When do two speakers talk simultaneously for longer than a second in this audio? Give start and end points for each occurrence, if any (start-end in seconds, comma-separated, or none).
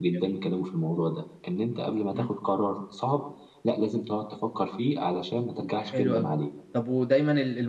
none